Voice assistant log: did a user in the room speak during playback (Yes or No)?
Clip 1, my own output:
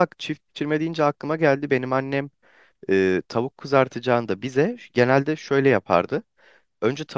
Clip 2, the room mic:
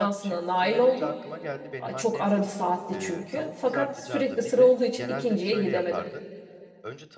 Yes